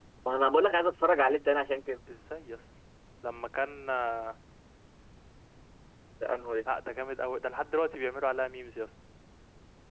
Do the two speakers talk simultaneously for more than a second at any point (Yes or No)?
No